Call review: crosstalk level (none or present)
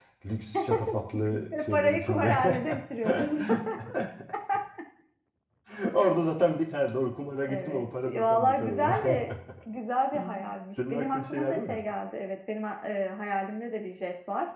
present